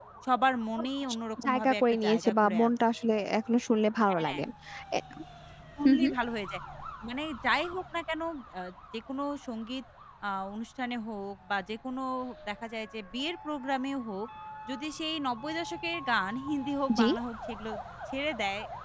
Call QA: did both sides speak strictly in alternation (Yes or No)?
No